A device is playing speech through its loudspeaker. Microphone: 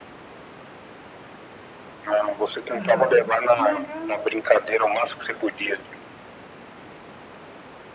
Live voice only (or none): Aham. Que legal.